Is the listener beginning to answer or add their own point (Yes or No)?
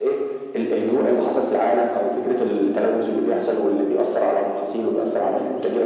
Yes